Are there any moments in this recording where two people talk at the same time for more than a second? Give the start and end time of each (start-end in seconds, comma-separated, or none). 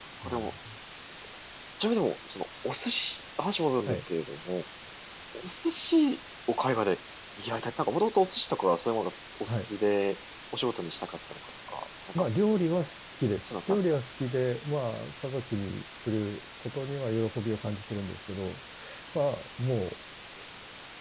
none